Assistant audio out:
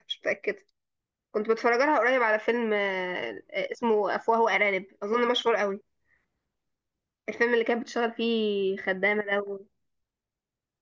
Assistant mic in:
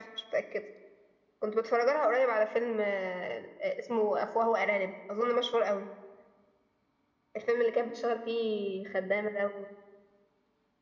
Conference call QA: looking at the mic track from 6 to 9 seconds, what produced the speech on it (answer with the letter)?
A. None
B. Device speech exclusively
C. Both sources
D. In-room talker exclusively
B